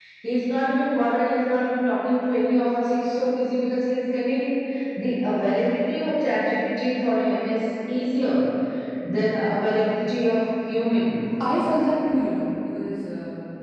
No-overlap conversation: Yes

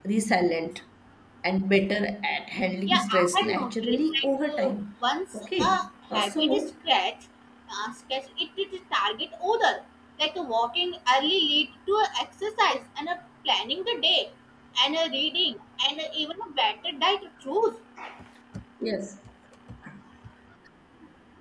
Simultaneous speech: Yes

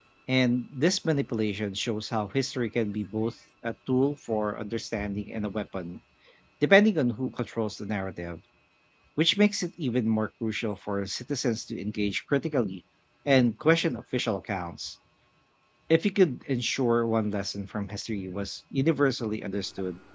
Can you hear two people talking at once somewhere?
No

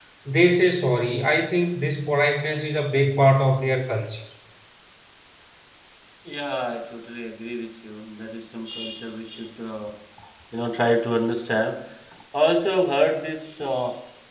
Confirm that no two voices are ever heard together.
Yes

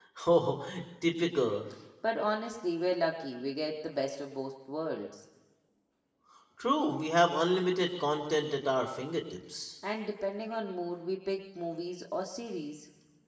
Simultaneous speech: No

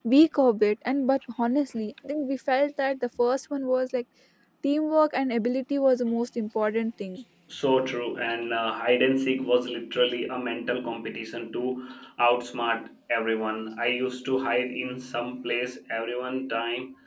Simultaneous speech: No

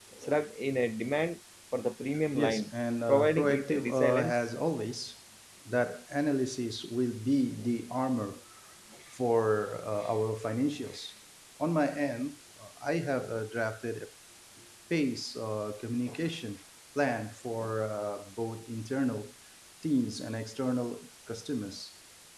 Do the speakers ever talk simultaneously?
Yes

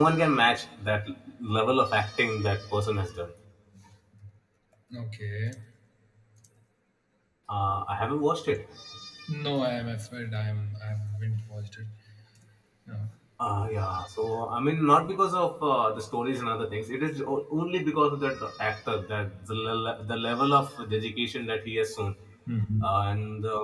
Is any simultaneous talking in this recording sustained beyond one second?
No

